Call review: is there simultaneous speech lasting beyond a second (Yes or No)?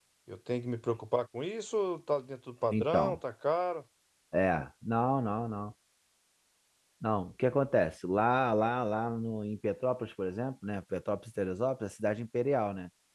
No